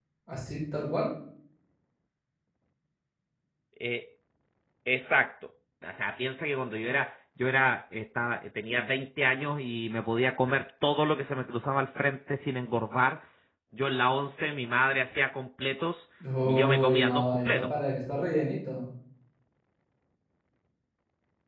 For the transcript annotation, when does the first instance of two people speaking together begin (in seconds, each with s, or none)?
16.4 s